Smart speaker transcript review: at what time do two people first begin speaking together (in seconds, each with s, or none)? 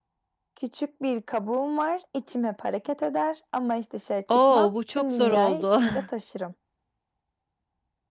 4.3 s